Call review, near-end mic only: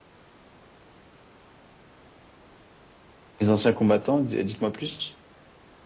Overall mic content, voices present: user only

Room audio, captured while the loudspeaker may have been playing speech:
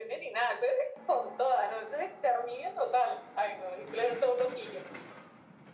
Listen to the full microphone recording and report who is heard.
echo only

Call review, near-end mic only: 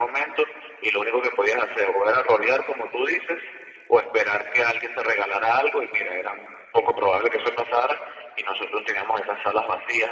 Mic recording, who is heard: echo only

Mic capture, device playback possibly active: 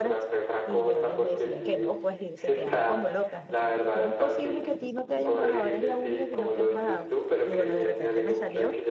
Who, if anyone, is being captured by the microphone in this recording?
both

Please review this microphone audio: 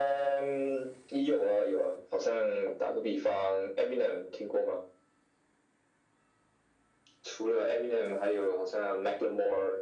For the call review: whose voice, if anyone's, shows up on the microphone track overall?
echo only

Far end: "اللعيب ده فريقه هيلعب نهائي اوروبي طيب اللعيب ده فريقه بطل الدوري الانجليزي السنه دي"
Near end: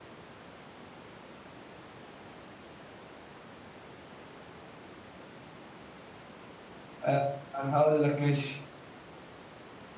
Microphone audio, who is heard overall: user only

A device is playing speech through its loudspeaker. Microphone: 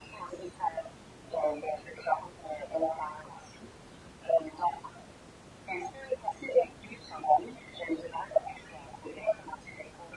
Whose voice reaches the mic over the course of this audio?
echo only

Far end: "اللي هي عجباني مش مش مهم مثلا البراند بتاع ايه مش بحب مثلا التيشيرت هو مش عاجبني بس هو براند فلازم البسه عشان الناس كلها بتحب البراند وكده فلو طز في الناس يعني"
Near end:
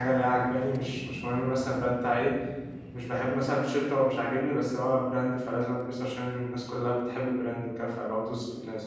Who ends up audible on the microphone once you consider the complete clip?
echo only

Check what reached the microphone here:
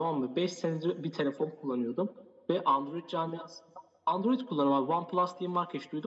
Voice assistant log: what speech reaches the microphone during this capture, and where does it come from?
echo only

